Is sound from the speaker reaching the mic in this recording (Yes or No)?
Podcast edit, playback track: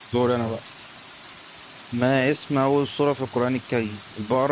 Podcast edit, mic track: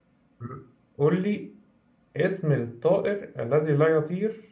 No